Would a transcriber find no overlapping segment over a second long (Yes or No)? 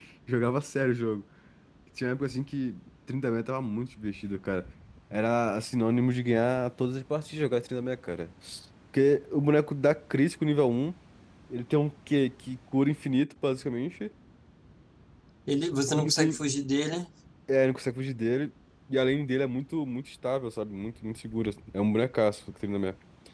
Yes